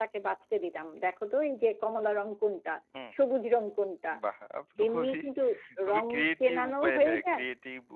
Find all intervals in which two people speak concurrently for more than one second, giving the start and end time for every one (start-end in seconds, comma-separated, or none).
5.9-7.4